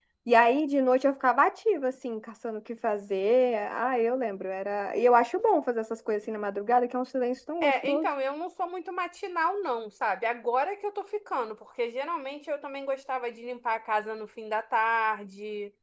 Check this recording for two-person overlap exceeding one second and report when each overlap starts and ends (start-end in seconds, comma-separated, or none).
none